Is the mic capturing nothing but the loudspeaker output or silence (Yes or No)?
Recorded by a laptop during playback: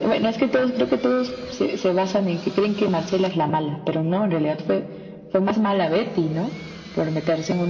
Yes